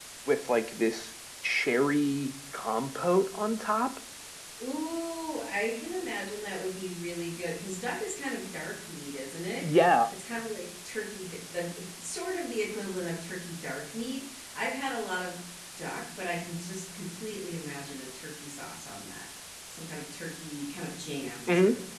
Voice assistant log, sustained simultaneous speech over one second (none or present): none